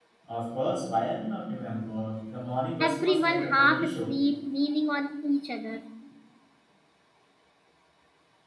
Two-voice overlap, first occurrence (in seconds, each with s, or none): 2.8 s